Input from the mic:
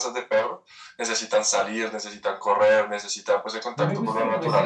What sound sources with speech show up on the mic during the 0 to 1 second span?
echo only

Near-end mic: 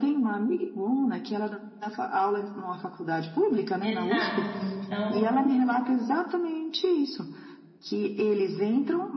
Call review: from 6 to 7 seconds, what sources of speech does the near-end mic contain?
echo only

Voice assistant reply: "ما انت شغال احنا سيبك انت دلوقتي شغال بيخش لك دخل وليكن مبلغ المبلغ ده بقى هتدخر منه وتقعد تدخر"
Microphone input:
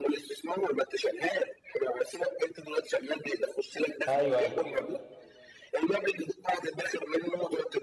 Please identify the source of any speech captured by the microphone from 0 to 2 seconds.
echo only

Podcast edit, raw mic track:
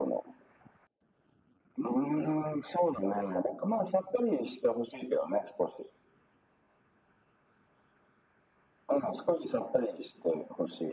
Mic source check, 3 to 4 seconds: echo only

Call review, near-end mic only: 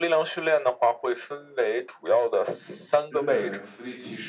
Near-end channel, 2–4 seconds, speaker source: both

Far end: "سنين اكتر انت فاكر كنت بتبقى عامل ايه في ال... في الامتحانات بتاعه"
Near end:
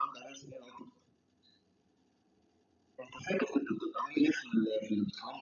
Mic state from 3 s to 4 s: echo only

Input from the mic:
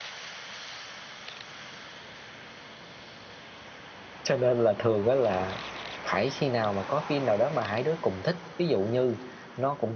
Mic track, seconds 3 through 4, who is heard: neither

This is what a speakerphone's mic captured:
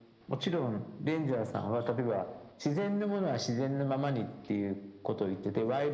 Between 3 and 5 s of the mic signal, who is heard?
echo only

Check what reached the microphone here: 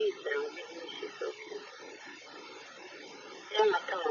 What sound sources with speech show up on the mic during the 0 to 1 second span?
echo only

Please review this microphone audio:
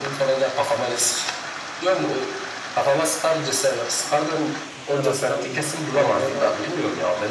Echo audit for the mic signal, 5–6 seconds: both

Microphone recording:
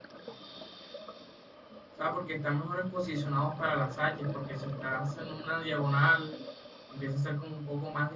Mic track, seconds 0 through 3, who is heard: user only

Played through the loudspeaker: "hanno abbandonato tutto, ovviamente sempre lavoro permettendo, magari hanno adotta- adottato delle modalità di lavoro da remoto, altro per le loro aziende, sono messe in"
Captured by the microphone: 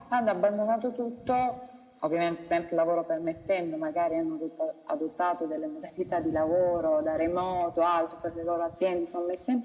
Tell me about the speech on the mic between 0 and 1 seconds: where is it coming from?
echo only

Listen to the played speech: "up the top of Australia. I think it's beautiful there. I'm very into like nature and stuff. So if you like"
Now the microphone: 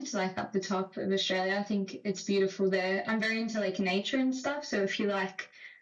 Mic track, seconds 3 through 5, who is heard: echo only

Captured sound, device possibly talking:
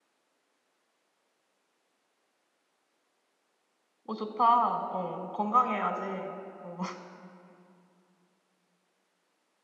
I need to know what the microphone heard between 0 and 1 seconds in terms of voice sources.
neither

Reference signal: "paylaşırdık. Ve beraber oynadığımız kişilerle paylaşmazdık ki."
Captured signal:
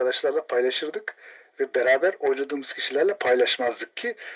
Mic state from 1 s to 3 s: echo only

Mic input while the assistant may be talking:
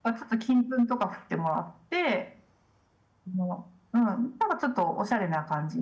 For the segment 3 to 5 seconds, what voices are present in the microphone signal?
echo only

